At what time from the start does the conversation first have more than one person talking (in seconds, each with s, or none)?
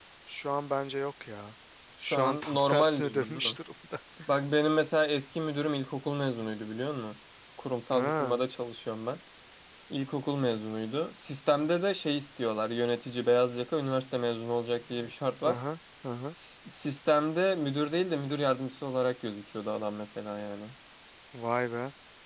2.0 s